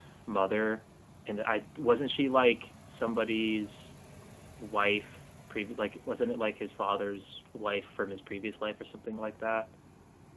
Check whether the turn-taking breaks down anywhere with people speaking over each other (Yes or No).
No